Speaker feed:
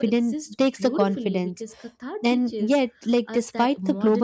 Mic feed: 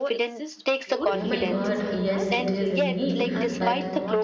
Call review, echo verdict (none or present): present